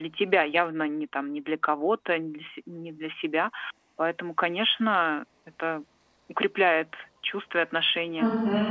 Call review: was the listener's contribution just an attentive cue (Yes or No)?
No